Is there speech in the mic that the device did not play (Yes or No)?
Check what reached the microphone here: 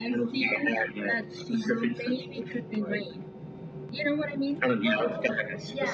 Yes